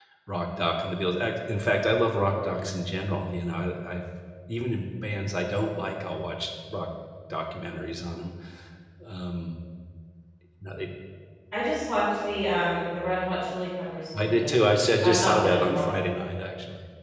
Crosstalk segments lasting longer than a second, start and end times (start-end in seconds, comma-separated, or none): 14.2-15.9